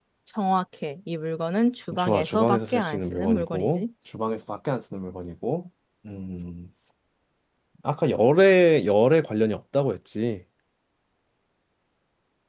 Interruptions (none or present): present